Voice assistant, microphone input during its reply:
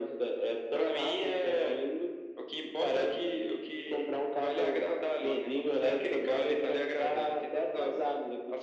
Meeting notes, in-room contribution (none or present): none